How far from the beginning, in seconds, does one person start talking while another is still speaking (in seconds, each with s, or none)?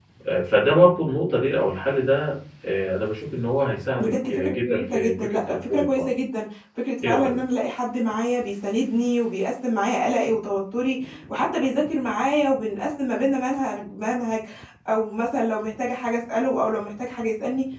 4.0 s